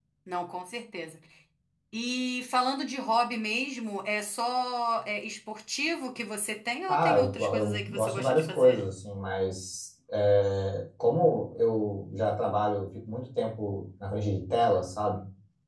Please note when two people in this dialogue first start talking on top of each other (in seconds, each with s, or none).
6.9 s